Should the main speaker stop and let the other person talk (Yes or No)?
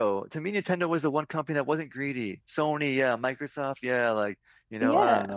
Yes